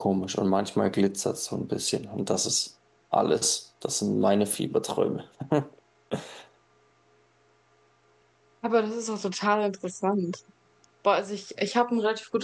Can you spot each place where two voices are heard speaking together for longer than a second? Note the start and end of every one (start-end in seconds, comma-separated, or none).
none